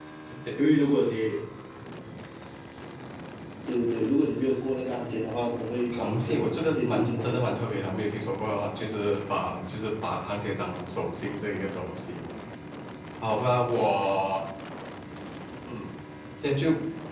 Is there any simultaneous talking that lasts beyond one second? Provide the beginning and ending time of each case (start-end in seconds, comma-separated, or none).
5.9-7.4